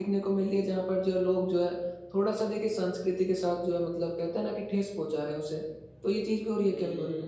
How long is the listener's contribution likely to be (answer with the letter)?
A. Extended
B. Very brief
A